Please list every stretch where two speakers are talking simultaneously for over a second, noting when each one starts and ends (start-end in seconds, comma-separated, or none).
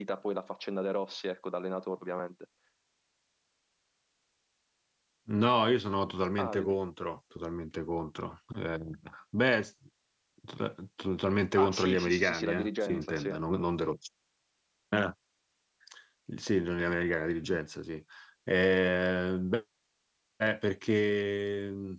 11.6-13.3